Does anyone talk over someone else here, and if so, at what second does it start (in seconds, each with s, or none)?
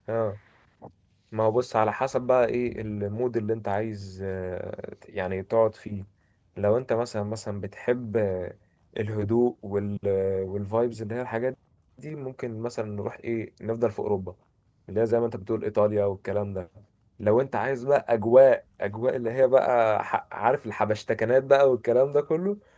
none